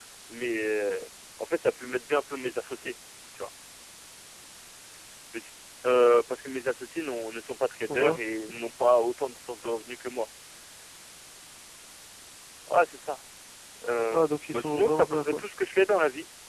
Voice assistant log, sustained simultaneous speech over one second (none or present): present